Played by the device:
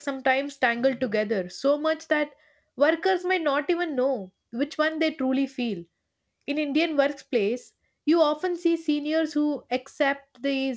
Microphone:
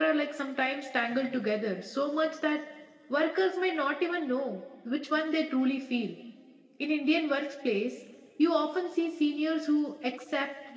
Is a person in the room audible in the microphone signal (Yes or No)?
No